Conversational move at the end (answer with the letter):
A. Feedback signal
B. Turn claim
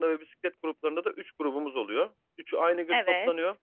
A